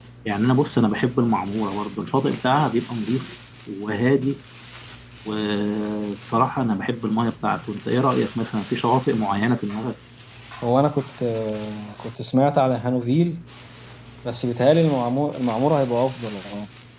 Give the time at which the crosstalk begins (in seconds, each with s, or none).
none